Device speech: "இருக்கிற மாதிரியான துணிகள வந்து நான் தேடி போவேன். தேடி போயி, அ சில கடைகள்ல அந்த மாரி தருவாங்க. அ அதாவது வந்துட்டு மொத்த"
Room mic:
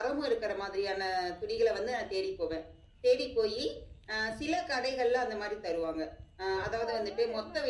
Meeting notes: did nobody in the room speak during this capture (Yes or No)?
No